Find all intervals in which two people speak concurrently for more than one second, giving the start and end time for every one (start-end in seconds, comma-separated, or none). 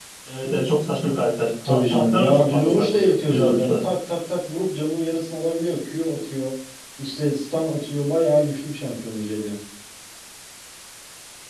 1.7-3.8